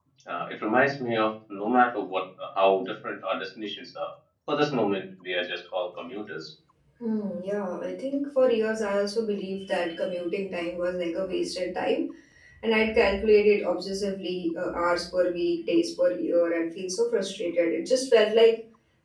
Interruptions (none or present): none